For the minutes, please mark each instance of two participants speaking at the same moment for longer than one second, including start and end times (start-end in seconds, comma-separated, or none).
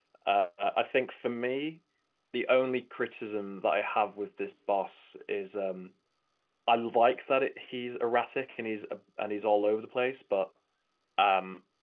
none